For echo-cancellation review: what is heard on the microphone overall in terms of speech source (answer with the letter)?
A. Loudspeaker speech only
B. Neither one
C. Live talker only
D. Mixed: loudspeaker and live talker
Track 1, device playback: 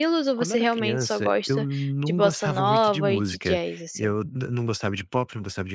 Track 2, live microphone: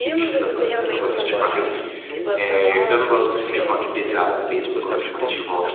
D